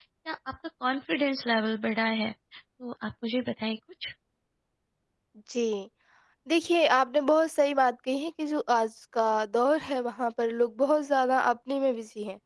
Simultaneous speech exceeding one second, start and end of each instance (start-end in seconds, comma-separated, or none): none